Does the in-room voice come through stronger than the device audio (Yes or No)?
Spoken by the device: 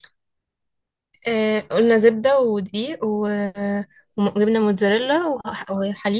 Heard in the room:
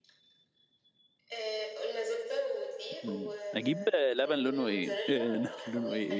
Yes